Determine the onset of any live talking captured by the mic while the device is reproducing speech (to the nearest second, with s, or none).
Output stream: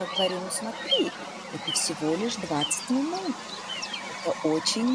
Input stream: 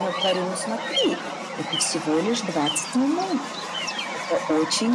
none